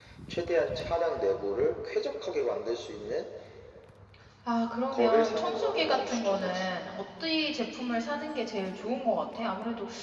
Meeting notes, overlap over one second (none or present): present